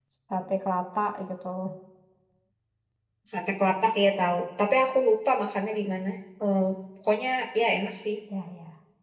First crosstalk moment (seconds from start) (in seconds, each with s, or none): none